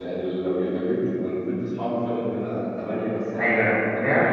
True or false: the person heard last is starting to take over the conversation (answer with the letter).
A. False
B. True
A